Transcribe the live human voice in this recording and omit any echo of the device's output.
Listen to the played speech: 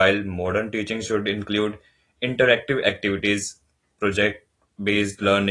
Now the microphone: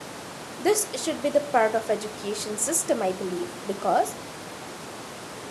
this should be the part of education system I believe because

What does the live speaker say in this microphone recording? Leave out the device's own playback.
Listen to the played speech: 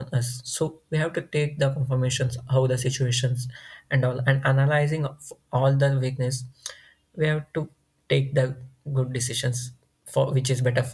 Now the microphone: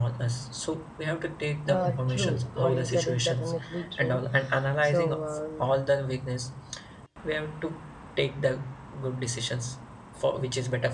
Uh, true. What you said is definitely true. So, um,

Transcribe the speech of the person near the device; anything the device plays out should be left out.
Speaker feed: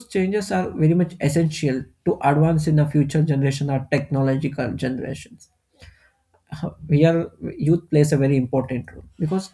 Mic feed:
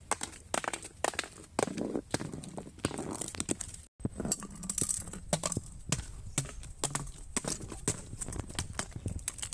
none

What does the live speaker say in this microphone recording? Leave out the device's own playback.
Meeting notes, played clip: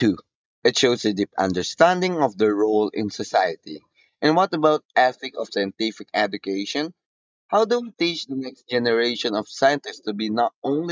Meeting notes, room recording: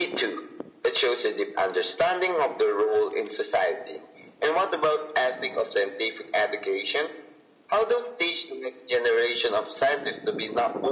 none

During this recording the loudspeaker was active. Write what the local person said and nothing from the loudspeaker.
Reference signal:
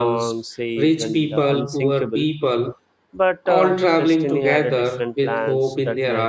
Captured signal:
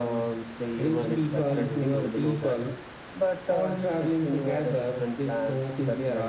everyone expected him to show that.

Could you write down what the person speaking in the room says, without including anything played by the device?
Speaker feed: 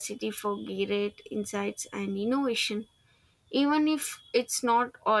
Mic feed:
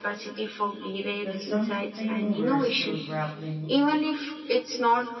that's something we're still grappling

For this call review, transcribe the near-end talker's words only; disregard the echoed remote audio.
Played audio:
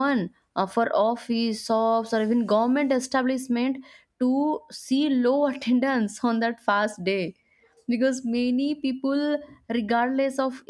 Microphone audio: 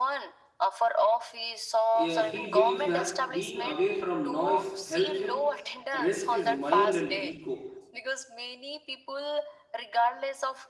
Eh, He believes that being away from noise helps him rest his mind and ego.

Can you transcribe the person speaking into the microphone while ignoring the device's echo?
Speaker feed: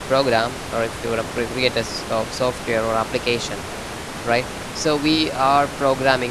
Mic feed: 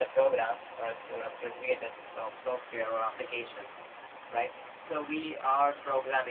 none

